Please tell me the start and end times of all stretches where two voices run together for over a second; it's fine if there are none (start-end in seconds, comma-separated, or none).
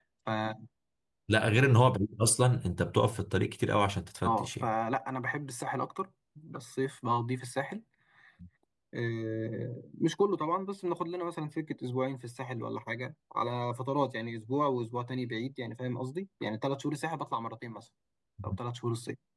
none